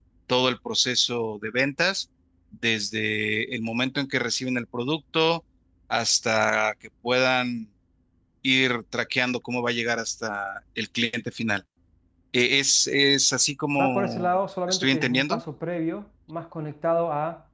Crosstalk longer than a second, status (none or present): present